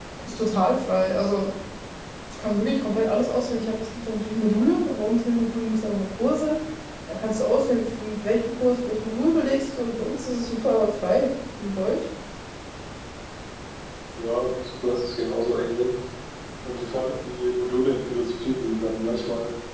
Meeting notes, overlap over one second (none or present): none